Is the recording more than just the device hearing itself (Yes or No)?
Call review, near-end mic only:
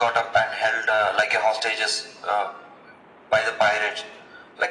No